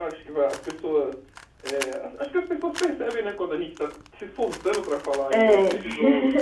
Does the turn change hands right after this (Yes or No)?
No